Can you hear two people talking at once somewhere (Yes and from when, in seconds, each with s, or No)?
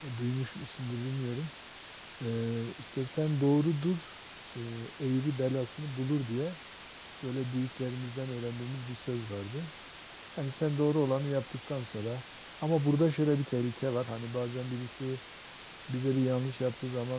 No